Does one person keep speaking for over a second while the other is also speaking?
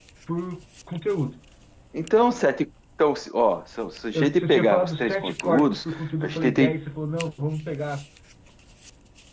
Yes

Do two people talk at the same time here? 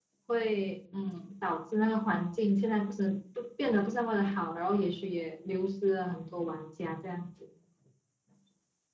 No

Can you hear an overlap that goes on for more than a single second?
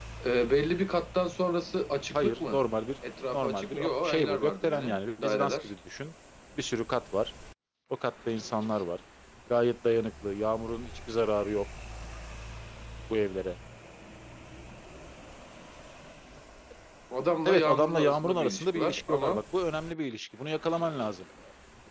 Yes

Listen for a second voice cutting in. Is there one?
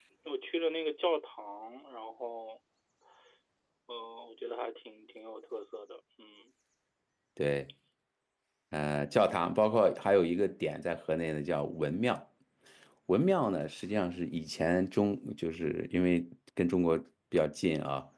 No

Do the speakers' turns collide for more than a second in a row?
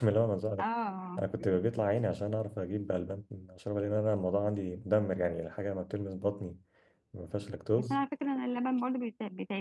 No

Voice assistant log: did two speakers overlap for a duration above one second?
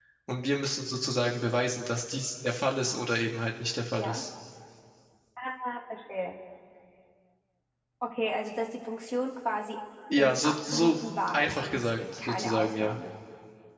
Yes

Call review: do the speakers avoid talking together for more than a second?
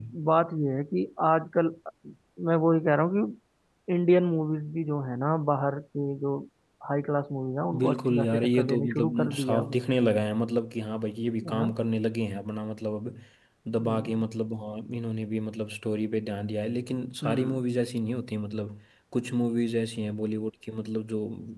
No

